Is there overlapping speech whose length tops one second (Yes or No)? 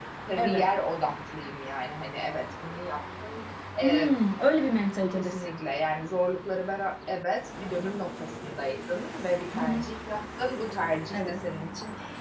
No